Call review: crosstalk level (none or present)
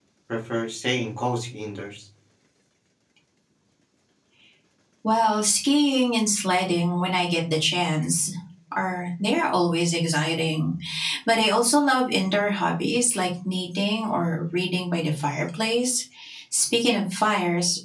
none